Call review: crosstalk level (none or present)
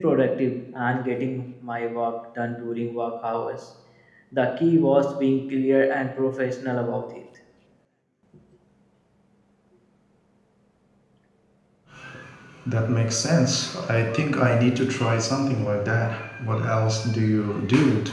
none